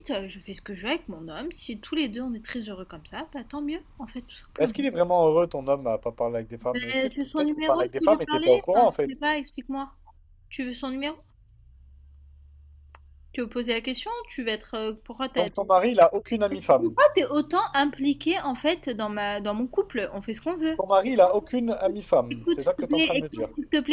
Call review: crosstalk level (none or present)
present